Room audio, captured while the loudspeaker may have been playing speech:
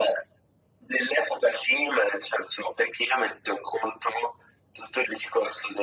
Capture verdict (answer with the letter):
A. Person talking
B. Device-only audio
B